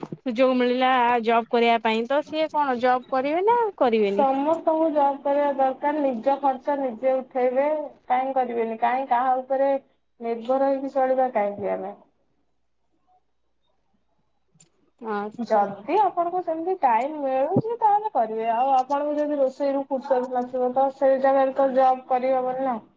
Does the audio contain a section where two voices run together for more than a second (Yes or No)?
No